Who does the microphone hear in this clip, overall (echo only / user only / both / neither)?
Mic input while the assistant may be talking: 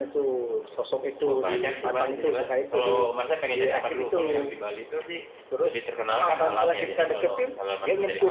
echo only